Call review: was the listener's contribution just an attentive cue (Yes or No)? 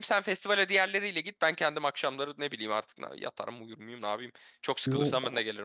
No